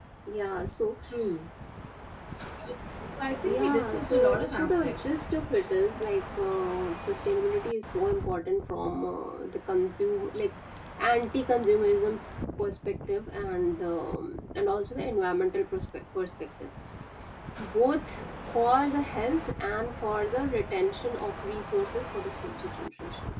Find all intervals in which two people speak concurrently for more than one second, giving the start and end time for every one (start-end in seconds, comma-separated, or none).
3.5-5.0